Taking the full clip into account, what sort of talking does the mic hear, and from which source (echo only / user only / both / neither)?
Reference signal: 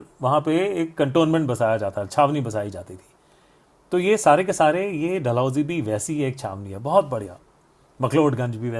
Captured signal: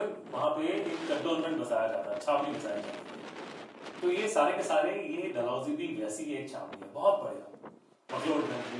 echo only